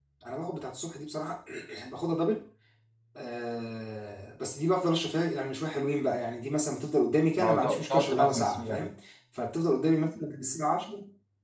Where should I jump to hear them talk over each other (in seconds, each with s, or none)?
7.4 s